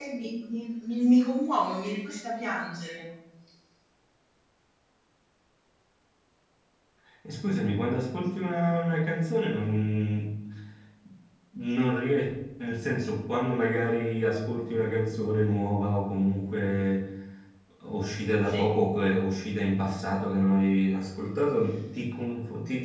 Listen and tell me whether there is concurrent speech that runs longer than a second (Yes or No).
No